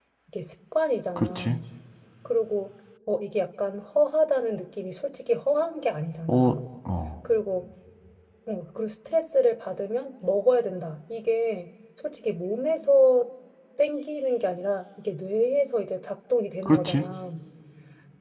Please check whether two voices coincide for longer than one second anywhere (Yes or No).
No